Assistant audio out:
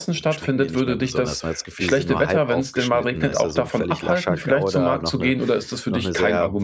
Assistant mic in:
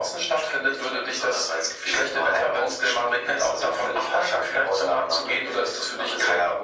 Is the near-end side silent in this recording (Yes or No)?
Yes